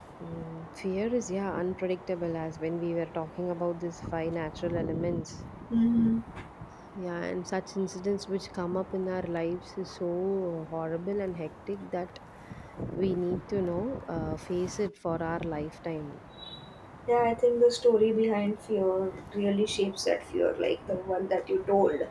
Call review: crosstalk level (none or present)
none